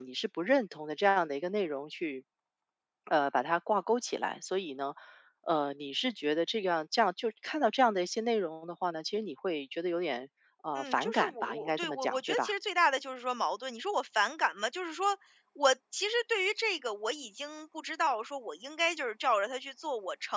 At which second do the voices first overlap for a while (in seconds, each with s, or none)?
10.8 s